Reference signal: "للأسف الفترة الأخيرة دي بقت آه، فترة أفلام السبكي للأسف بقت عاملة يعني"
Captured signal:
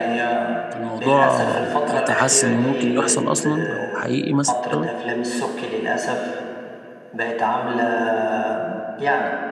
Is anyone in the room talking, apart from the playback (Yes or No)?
Yes